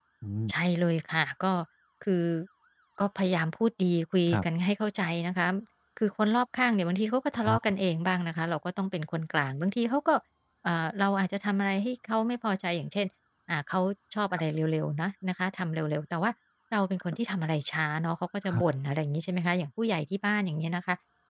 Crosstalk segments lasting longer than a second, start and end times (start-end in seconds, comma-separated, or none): none